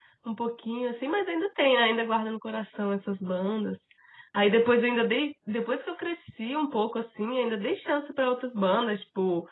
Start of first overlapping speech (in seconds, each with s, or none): none